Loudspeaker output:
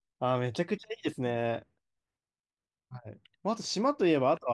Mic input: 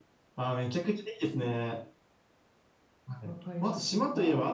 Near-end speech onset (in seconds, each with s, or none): 3.2 s